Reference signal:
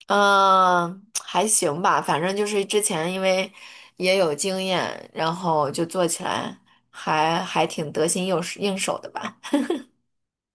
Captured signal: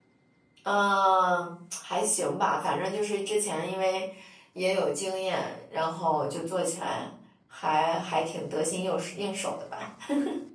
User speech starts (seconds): none

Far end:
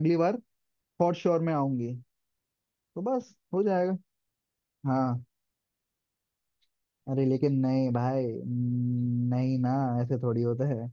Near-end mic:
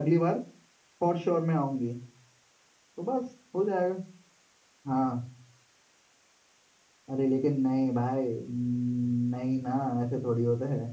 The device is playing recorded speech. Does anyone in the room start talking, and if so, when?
none

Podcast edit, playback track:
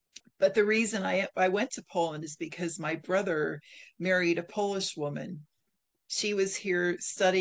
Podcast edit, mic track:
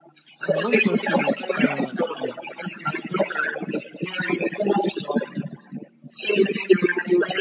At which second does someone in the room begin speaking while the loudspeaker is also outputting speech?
0.4 s

